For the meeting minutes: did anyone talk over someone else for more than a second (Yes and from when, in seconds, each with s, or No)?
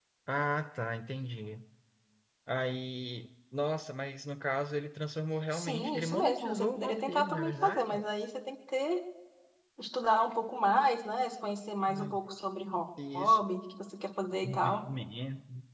Yes, from 5.5 s